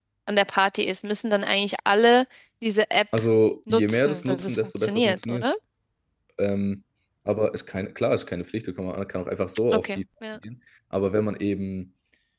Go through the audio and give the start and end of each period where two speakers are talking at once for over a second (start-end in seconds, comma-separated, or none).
3.7-5.5